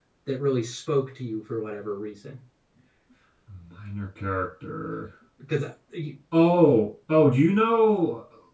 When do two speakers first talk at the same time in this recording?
none

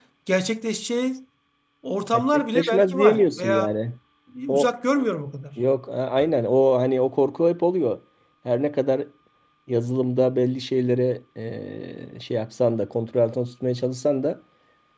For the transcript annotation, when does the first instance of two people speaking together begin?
2.1 s

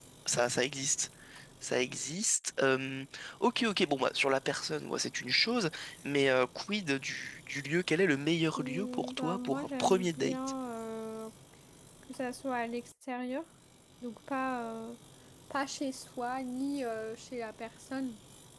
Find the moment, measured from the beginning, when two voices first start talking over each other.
8.6 s

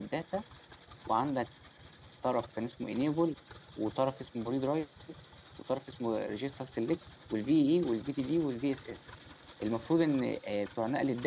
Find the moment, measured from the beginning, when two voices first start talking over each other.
none

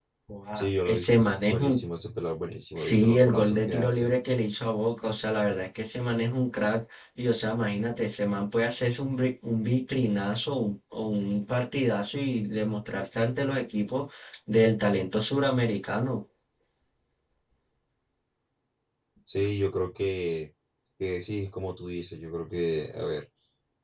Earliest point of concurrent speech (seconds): 0.6 s

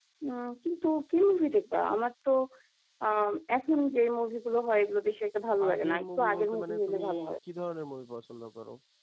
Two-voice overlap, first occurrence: 5.5 s

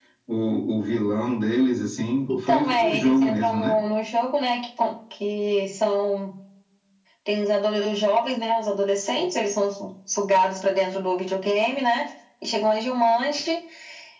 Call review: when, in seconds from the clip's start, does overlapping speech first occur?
2.3 s

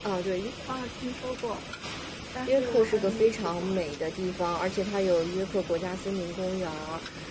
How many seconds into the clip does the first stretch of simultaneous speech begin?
2.5 s

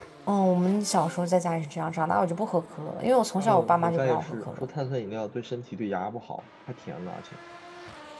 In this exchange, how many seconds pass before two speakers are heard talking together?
3.4 s

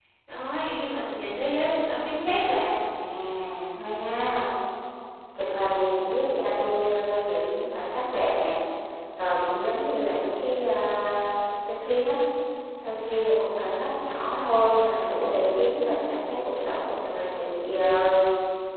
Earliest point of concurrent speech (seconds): none

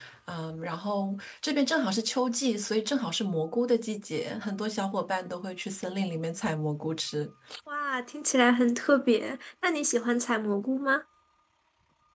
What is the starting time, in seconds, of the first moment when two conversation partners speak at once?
none

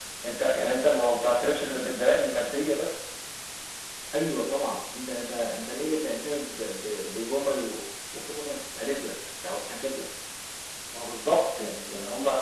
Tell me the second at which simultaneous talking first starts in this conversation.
none

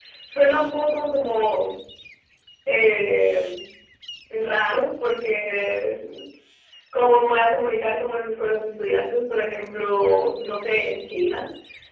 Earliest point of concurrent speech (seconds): none

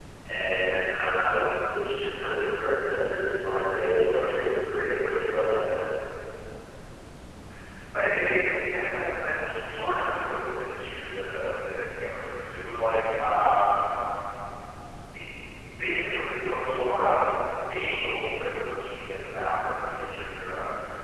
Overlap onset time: none

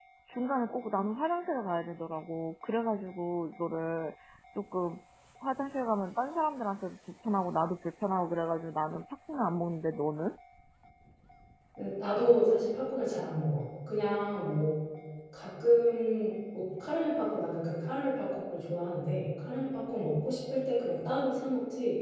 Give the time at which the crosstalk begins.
none

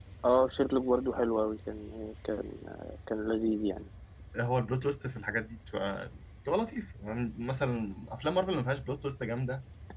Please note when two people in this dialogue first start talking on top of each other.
none

